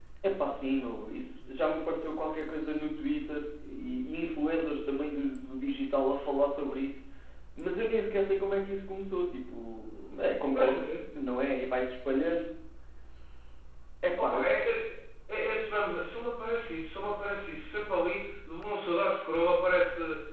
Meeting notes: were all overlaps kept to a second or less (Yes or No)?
Yes